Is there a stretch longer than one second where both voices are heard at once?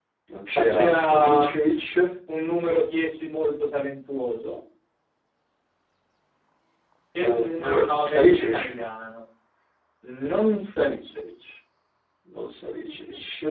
Yes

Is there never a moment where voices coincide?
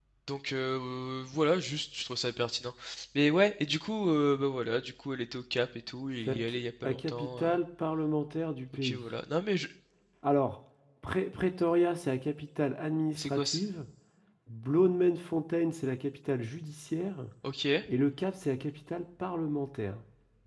No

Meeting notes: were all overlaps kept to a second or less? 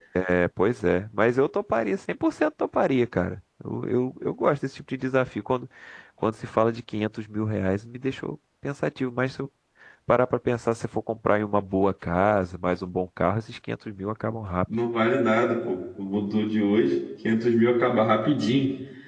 Yes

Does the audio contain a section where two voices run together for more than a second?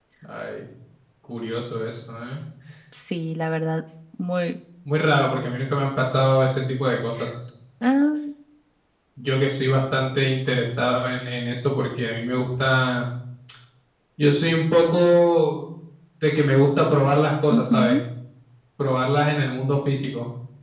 No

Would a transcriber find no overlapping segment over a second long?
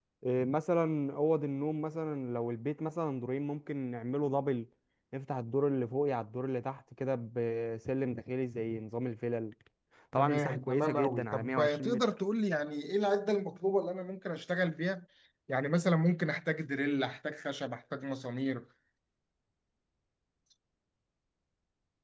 No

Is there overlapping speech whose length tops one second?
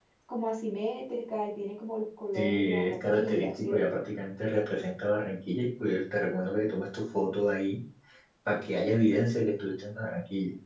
Yes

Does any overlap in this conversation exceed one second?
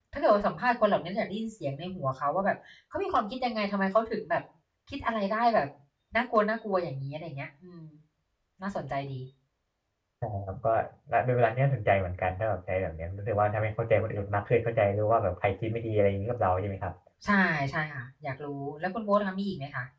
No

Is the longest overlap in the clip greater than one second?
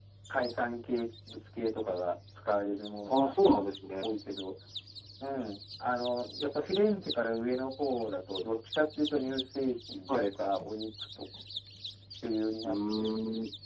No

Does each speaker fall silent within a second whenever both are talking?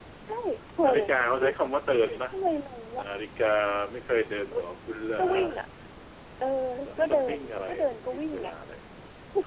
No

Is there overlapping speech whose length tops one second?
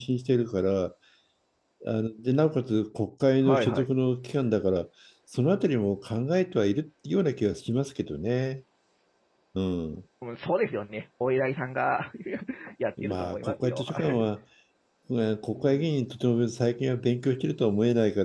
Yes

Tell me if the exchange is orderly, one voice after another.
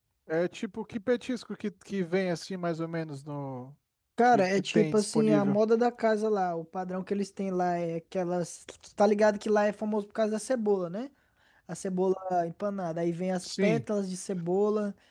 No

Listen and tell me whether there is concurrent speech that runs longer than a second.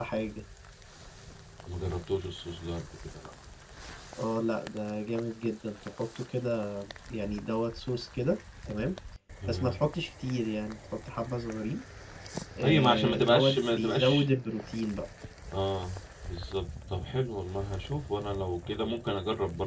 Yes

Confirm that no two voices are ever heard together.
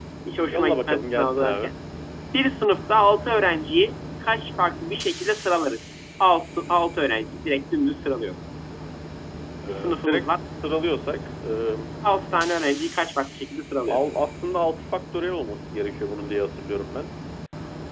No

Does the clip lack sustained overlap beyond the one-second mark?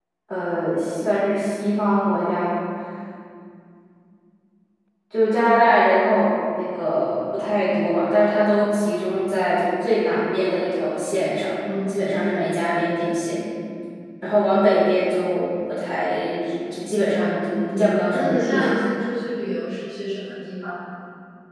No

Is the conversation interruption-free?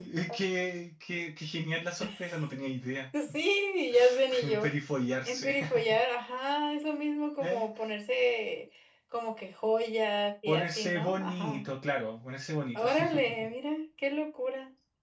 No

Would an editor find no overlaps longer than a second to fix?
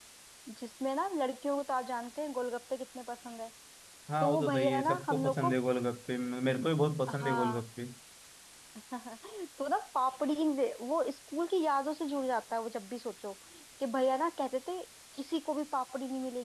No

